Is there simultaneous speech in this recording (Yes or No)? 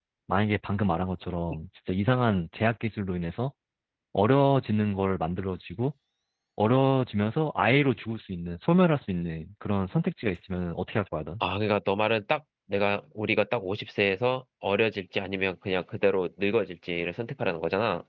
No